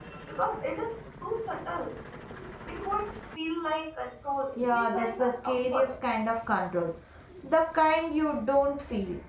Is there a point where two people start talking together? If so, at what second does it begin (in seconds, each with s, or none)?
4.6 s